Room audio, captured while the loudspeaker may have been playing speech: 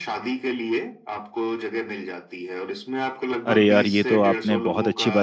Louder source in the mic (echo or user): user